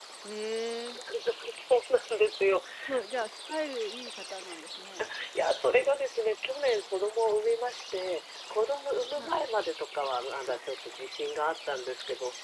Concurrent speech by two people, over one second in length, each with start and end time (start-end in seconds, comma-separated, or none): none